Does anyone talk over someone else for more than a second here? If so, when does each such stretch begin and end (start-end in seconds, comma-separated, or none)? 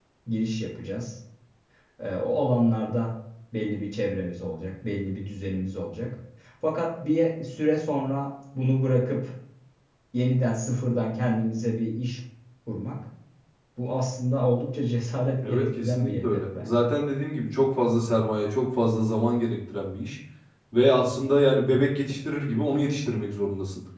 15.4-16.8